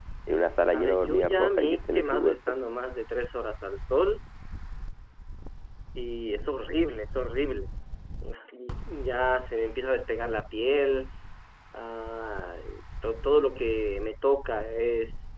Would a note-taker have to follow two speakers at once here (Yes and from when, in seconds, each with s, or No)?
Yes, from 0.7 s